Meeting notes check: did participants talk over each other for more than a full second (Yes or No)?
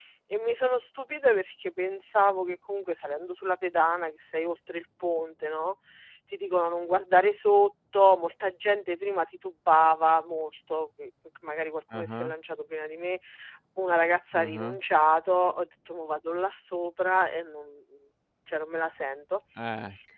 No